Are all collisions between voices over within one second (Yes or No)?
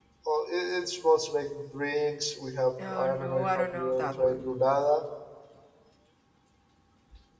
No